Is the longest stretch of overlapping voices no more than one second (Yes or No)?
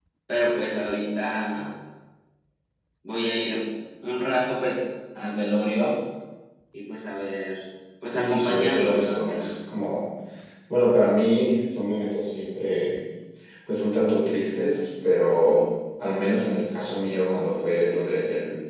No